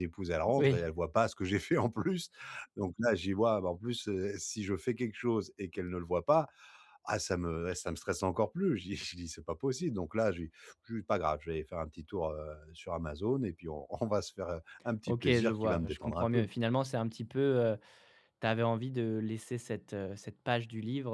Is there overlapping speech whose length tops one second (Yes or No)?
Yes